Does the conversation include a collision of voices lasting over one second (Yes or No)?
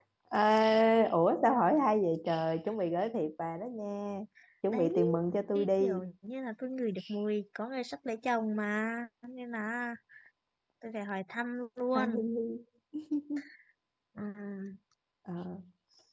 No